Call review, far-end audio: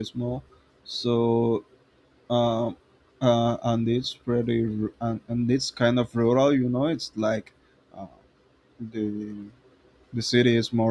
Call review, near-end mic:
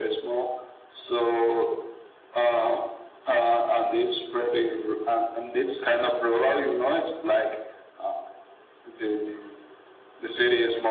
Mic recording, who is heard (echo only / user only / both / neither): echo only